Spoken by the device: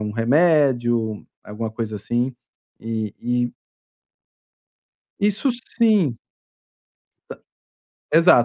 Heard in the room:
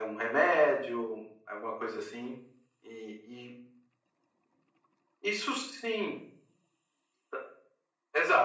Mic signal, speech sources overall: echo only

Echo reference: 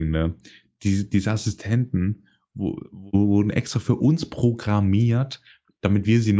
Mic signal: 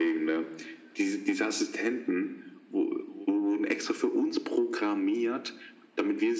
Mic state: echo only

